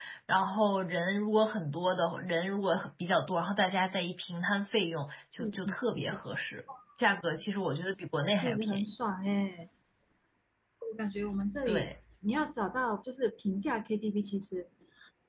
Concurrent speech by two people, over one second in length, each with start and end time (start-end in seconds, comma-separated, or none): none